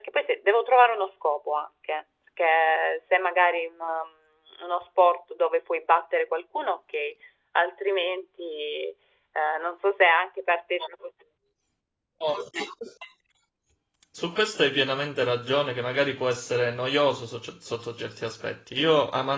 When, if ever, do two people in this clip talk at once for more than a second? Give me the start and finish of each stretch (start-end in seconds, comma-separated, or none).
none